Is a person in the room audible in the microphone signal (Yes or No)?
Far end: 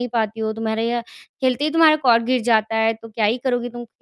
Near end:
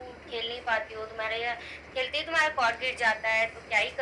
No